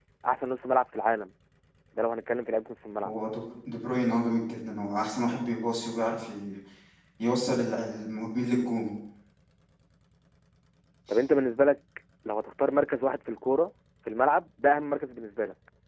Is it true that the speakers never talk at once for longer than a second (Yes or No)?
Yes